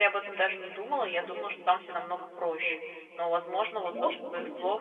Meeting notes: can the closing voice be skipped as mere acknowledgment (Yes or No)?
Yes